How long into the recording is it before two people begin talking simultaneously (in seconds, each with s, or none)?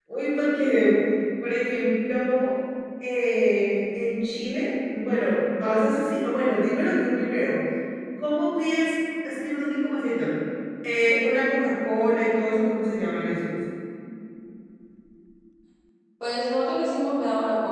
none